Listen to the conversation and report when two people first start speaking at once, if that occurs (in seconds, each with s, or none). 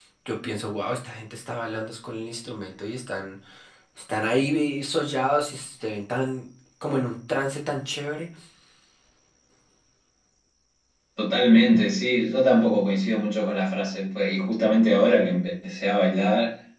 none